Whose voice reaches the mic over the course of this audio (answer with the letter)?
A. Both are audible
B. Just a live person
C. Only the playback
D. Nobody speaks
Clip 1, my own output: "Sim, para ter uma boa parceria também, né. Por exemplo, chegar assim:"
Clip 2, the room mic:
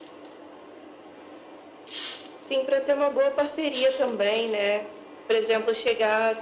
C